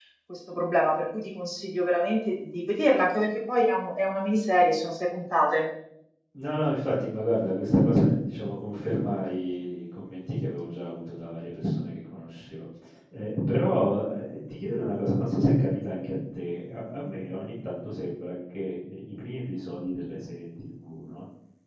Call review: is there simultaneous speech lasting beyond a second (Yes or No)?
No